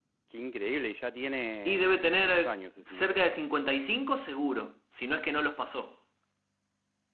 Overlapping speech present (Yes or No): Yes